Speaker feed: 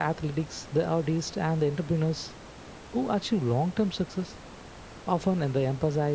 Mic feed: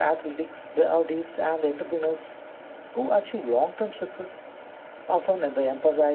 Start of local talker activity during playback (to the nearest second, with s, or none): none